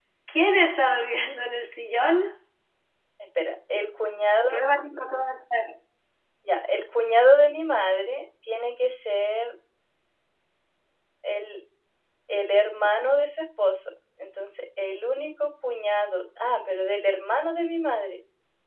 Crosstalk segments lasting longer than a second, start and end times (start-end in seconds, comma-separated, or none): none